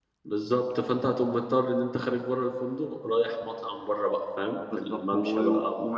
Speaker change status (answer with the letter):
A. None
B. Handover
B